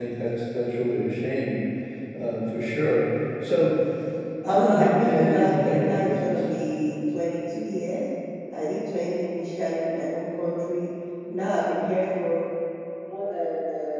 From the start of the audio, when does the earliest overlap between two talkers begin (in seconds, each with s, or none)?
4.4 s